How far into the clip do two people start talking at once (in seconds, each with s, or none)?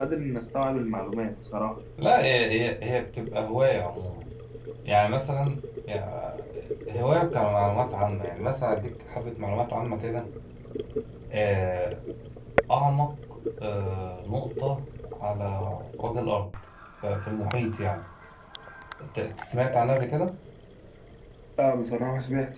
none